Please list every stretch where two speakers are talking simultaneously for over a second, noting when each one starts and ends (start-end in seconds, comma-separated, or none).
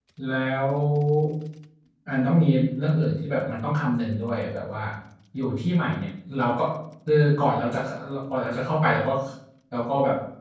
none